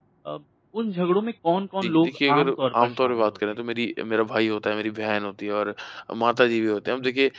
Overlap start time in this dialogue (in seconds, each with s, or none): 1.8 s